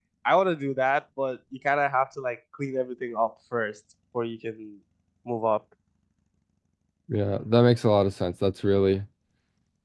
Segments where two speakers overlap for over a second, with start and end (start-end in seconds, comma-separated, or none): none